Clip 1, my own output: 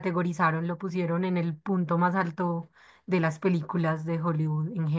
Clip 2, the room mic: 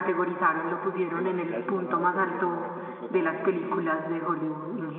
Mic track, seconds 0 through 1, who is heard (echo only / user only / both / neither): echo only